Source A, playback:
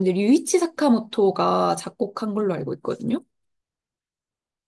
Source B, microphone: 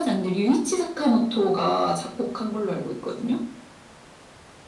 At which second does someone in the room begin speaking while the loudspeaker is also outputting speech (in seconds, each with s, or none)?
none